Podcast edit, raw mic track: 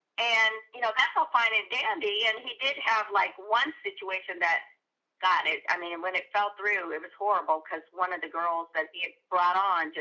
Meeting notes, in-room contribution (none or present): none